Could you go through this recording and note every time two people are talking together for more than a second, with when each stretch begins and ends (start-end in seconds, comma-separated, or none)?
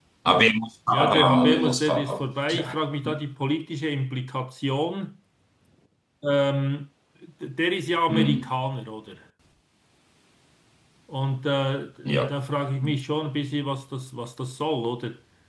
0.9-2.8